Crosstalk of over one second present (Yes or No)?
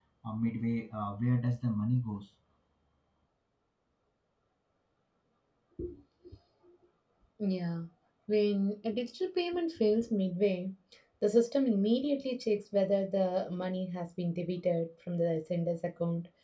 No